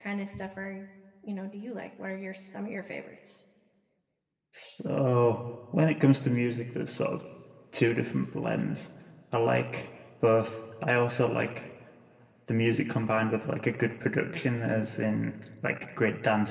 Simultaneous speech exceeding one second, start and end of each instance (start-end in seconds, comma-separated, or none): none